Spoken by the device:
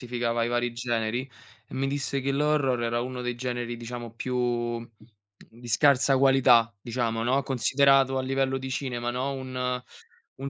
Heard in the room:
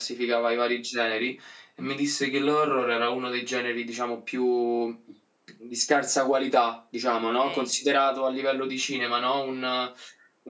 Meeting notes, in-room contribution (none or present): present